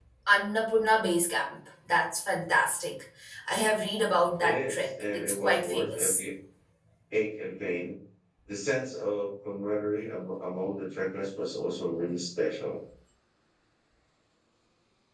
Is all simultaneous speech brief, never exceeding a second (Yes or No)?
No